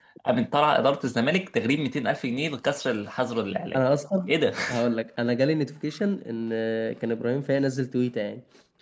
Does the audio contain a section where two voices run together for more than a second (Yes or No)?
No